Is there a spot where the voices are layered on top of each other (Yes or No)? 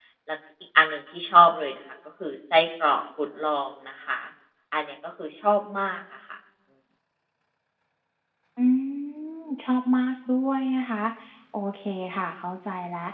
No